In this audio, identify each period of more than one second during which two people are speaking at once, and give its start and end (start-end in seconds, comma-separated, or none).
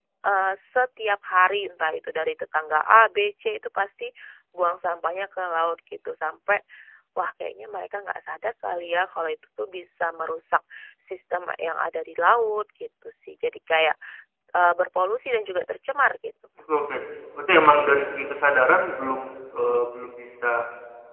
none